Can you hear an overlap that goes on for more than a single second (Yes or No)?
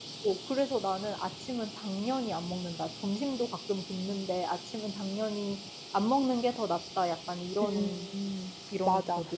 No